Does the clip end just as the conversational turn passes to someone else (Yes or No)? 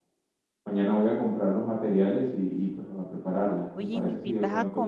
Yes